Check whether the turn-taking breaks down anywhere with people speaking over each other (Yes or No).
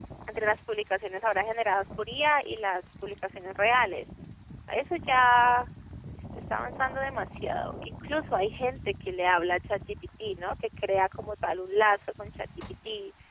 No